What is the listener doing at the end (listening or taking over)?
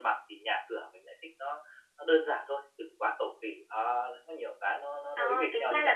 taking over